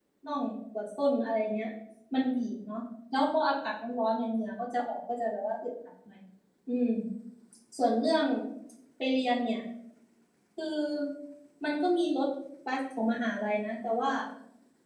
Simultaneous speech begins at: none

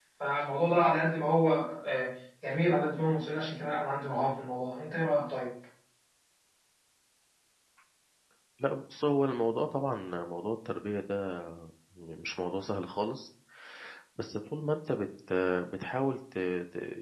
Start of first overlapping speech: none

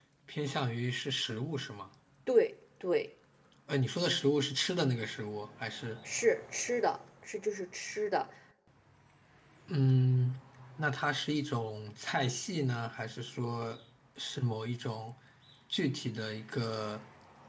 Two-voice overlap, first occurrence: none

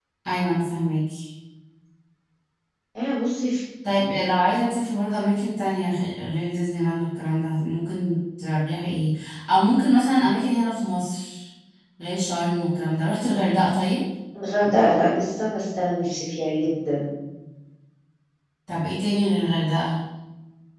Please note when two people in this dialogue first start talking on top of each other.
none

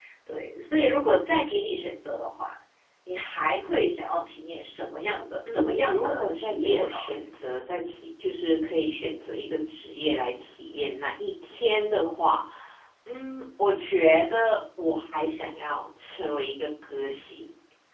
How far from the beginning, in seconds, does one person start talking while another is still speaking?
5.5 s

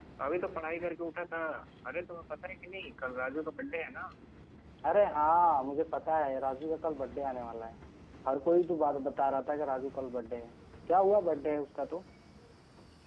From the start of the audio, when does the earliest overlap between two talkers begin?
none

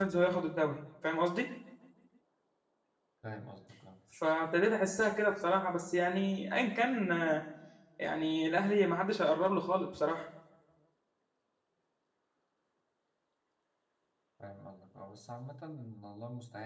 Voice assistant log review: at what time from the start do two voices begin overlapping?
none

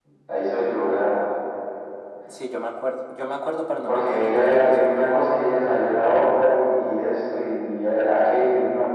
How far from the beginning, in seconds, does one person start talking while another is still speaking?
3.9 s

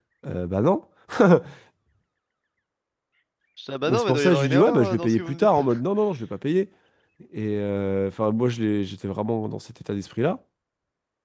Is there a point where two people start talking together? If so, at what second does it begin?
3.9 s

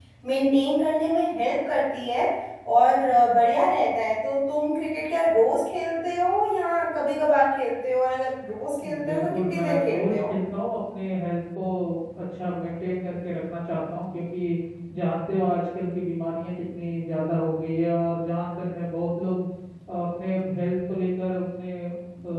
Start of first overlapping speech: 9.1 s

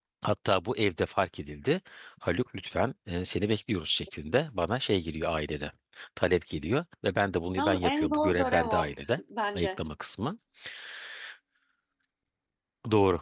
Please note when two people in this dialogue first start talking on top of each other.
7.6 s

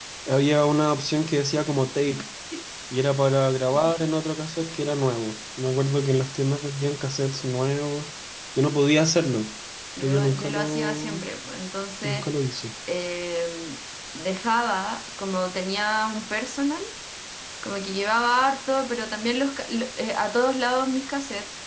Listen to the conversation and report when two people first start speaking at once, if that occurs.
10.0 s

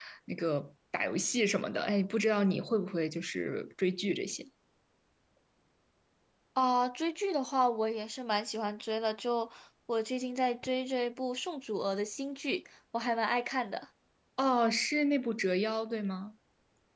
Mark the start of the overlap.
none

